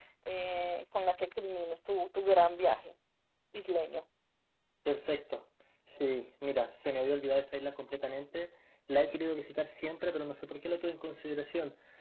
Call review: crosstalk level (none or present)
none